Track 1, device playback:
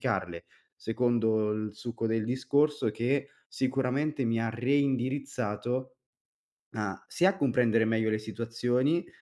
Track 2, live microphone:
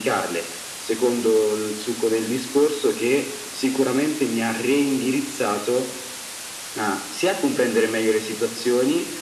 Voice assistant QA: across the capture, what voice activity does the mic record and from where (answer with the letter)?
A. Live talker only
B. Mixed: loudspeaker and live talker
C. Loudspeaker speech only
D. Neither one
C